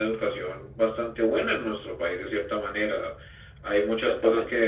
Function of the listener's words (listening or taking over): listening